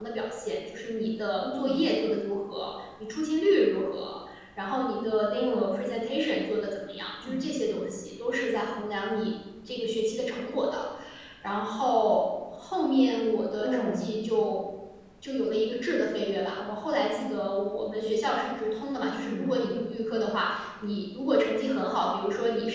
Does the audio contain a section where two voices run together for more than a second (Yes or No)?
No